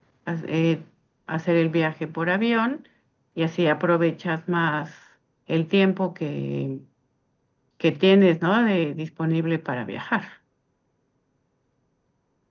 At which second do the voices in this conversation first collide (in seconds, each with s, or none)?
none